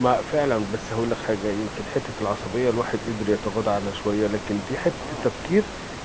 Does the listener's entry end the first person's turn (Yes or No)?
No